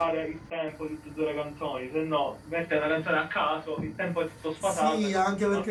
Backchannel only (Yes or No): No